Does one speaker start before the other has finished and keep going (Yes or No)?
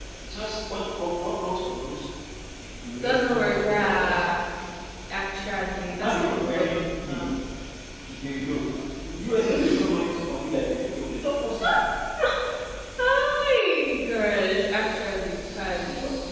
Yes